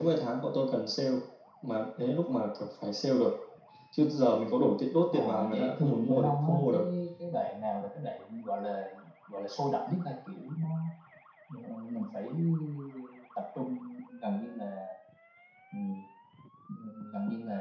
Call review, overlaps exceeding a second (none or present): present